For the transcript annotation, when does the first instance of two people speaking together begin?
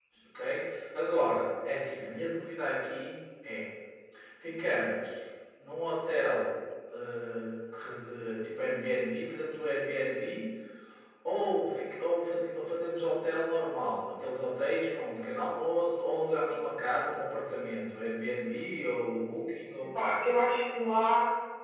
none

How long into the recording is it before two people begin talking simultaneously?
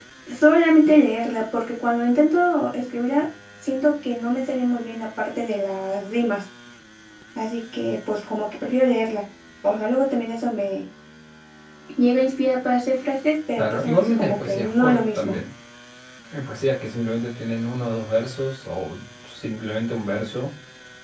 13.6 s

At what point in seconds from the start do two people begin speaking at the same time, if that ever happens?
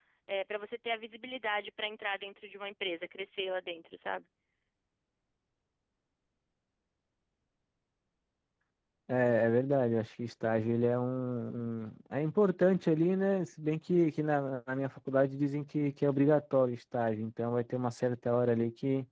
none

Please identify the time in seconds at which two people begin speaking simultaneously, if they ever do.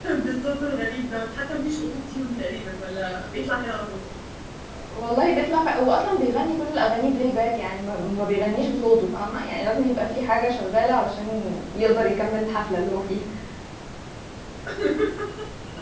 none

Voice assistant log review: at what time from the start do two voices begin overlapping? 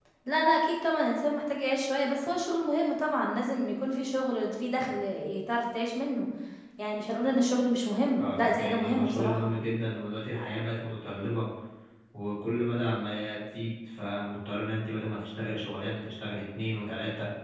8.2 s

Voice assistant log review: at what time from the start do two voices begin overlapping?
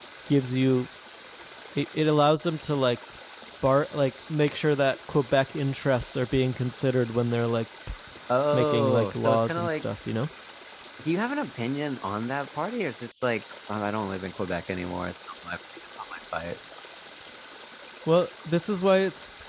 8.5 s

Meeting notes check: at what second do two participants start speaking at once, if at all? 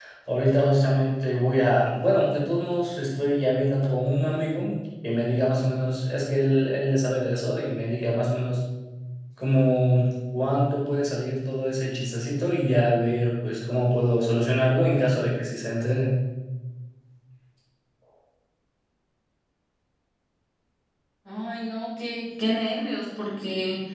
none

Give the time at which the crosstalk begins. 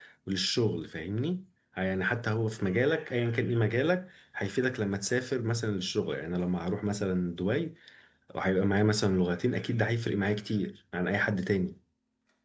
none

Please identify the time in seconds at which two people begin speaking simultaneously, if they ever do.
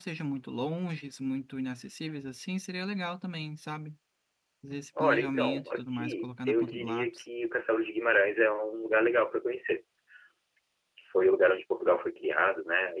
5.0 s

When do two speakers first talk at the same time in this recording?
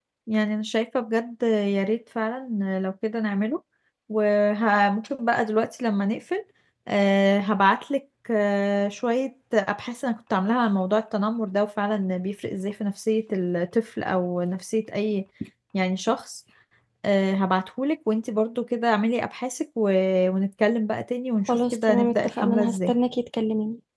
21.5 s

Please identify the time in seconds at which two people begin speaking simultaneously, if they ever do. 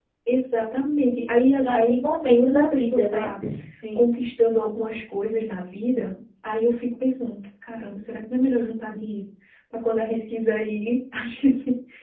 1.6 s

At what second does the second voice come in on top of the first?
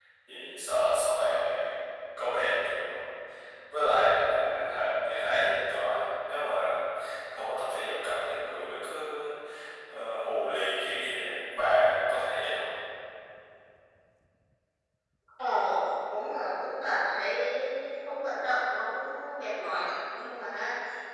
none

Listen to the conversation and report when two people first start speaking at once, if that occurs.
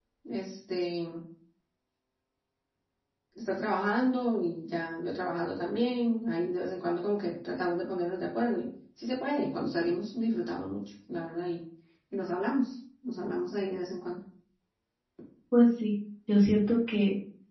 none

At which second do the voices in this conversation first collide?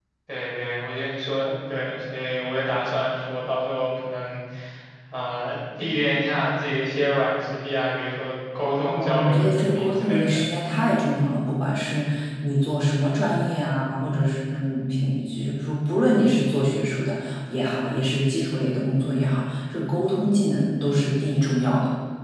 8.8 s

